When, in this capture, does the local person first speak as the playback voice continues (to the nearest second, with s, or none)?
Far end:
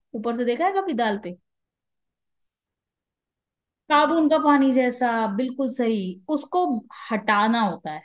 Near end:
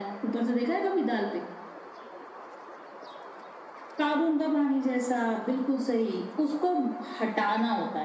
none